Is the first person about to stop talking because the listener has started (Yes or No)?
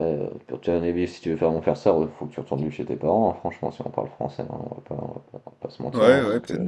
Yes